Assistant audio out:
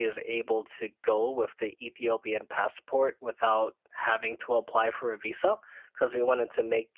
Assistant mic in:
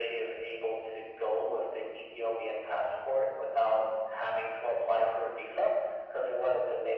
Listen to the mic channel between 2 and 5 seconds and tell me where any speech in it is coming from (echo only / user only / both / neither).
echo only